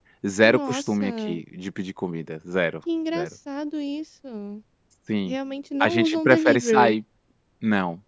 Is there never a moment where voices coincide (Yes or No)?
No